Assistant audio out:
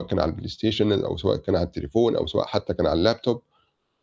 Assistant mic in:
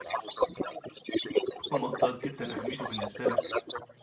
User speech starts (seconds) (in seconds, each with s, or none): 1.7 s